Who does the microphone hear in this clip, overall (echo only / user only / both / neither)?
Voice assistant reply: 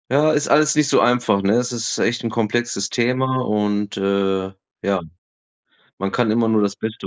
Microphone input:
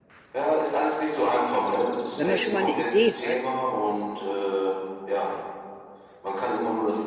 both